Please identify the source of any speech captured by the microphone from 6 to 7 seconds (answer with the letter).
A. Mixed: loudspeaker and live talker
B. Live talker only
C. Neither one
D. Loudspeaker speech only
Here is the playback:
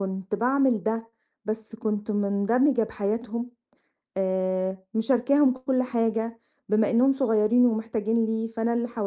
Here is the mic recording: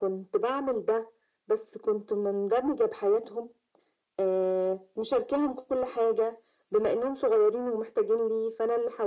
D